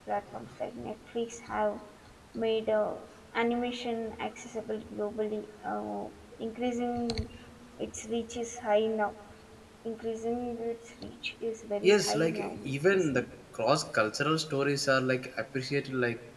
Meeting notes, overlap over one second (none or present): present